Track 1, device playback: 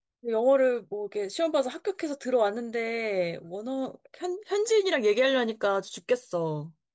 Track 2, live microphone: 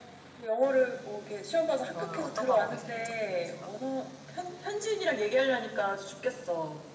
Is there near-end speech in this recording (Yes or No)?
Yes